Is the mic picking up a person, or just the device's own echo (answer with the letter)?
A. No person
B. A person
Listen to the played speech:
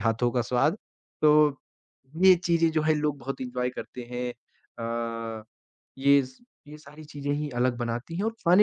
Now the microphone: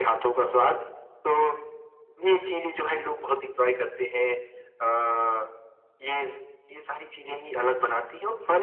A